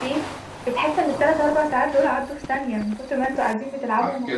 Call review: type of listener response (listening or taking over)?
taking over